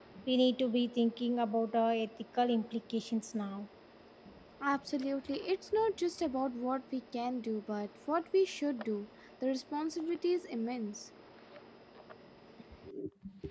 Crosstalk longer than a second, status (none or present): none